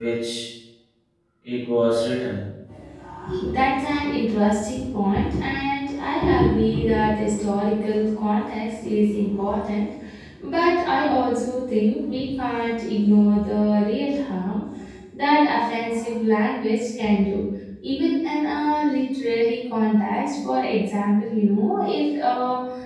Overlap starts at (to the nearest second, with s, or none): none